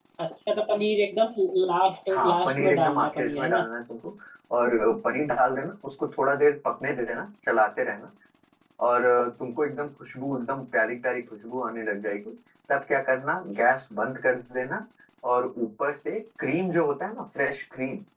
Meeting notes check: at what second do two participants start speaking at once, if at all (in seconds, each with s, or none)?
2.1 s